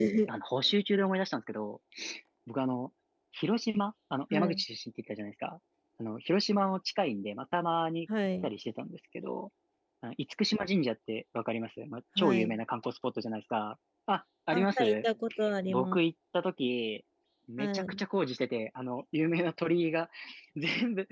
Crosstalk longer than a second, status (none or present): none